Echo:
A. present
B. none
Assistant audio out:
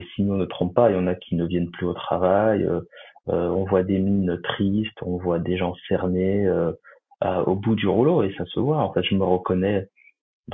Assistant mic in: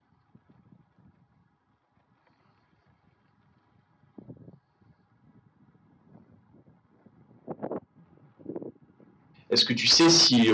B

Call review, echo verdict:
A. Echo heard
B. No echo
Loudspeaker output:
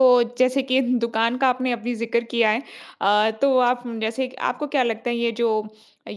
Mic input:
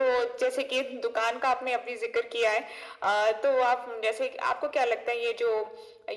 A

